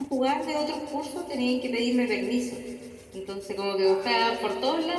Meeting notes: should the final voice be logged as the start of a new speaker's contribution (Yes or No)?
No